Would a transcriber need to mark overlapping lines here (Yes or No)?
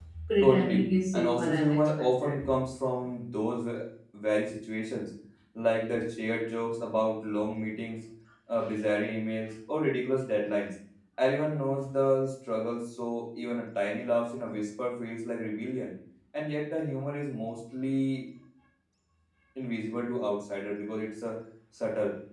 Yes